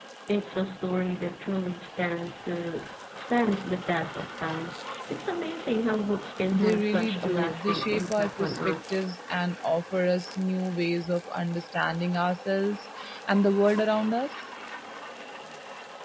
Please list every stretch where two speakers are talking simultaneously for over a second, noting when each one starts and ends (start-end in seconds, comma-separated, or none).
6.5-8.9